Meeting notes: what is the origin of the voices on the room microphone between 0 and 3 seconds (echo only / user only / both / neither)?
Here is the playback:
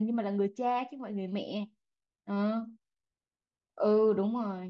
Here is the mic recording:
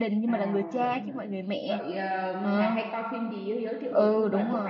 both